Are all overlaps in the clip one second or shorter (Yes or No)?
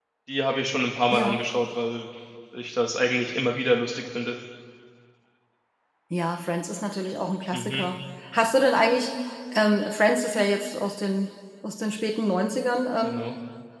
Yes